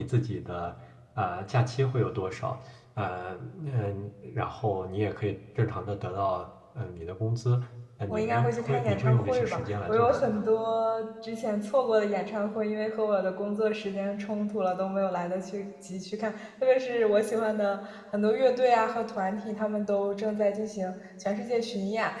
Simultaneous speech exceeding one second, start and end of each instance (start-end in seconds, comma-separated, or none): 8.1-10.4